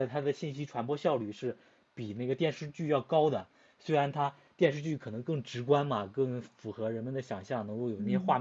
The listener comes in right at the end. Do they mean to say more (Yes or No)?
No